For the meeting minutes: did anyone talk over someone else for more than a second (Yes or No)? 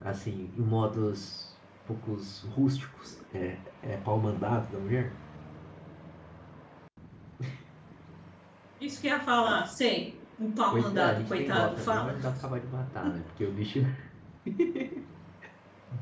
Yes